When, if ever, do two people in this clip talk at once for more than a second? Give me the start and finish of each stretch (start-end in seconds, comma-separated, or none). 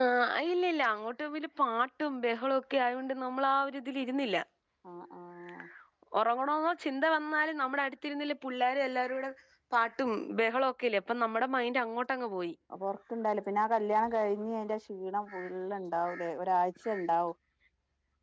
none